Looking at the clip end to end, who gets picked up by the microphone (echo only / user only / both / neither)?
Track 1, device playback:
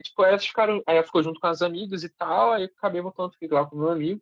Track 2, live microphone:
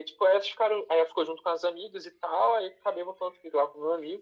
echo only